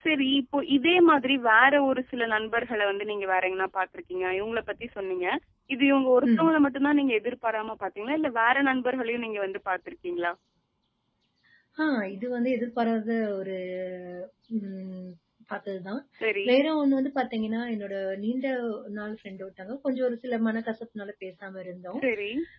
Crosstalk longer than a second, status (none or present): none